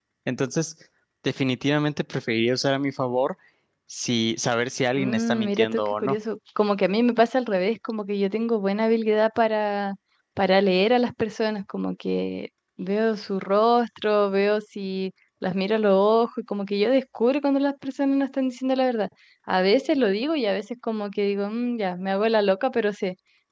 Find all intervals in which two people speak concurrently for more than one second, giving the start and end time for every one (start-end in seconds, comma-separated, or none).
5.0-6.2